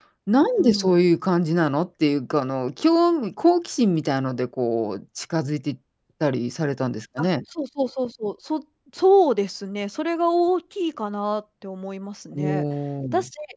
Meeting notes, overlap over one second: none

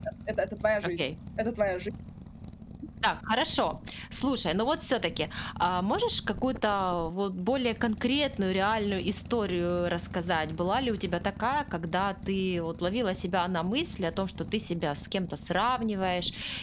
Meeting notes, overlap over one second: none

